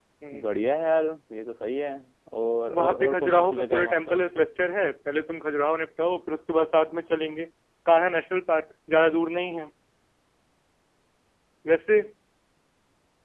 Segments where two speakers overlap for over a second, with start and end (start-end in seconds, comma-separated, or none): 2.8-4.2